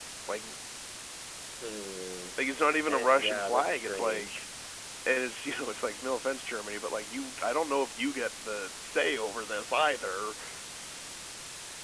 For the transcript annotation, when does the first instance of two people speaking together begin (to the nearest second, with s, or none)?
3 s